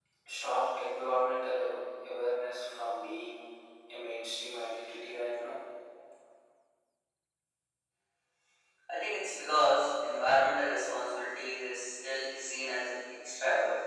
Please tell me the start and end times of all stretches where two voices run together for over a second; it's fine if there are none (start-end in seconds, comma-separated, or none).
none